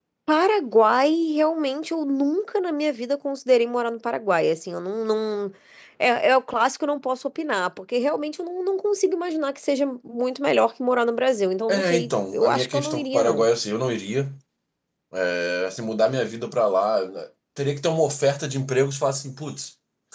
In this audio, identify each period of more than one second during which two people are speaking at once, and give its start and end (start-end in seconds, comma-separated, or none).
11.7-13.5